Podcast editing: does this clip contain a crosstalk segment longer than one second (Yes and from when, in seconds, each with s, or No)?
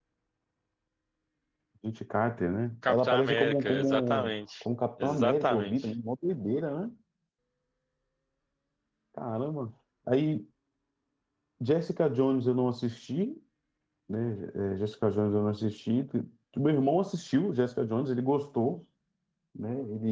Yes, from 2.8 s